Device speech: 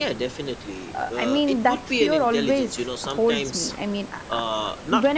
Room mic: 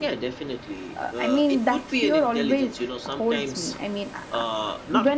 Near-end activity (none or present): none